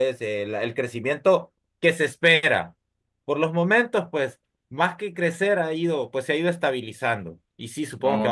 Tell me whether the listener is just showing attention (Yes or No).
Yes